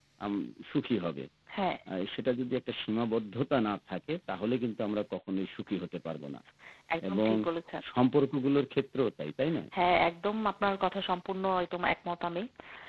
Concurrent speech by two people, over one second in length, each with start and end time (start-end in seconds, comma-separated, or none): none